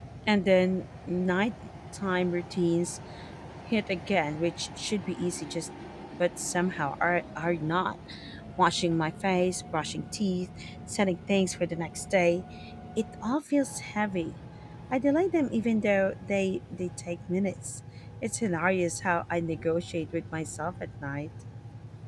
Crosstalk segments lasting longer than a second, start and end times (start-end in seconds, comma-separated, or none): none